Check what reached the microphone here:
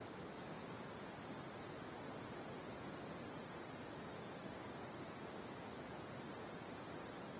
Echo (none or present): none